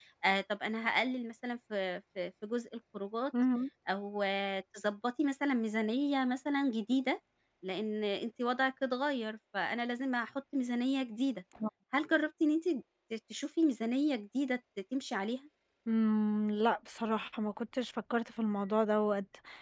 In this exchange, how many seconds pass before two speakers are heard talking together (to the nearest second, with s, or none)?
none